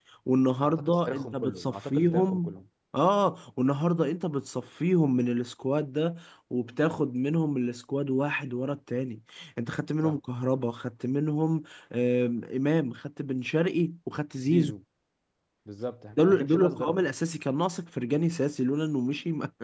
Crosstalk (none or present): present